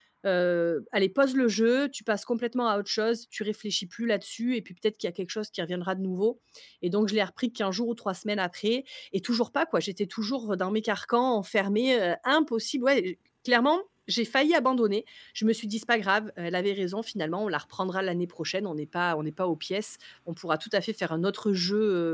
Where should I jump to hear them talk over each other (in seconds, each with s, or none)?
none